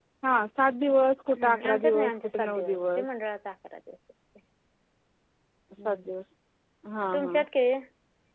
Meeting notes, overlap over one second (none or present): present